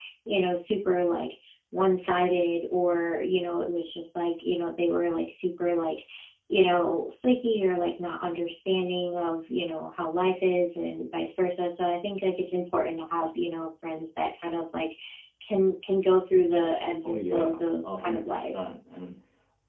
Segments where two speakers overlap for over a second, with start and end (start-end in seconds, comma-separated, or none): 17.0-18.5